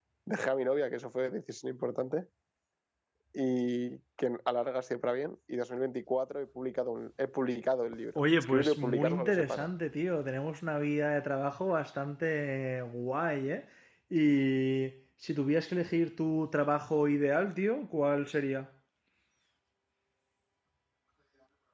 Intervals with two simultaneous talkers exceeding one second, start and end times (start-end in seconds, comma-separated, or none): 8.2-9.7